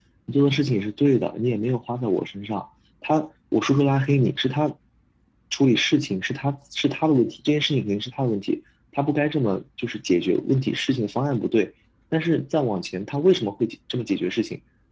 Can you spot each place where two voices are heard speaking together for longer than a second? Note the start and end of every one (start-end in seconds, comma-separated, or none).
none